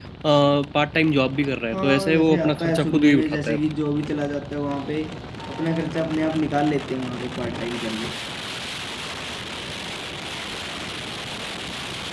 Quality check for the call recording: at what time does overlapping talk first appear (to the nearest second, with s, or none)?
2 s